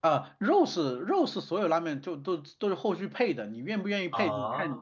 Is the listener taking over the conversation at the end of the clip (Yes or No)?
No